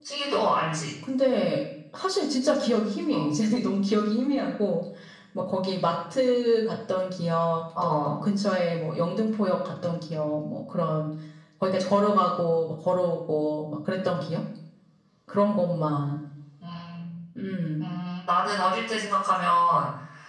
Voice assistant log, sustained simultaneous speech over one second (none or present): none